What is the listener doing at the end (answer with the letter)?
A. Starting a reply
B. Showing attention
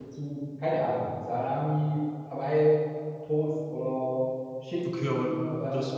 A